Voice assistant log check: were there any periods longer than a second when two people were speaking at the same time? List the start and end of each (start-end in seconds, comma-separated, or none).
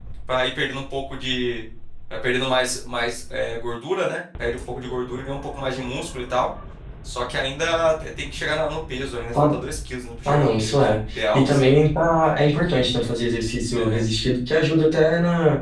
10.2-11.6